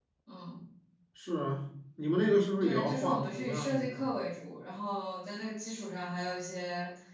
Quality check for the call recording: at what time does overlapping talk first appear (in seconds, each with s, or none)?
2.6 s